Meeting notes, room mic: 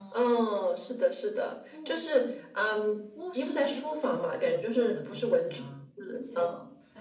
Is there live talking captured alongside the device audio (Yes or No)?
Yes